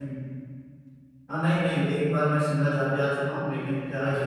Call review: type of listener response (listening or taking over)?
listening